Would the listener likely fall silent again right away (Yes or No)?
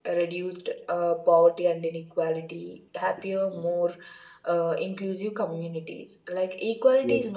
Yes